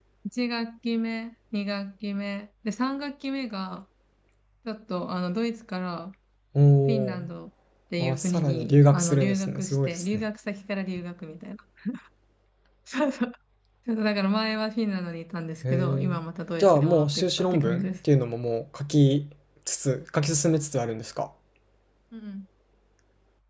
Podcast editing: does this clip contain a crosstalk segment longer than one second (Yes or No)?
Yes